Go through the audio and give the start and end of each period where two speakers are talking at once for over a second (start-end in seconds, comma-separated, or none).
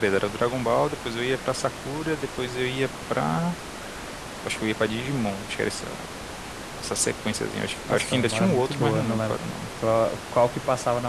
7.9-9.4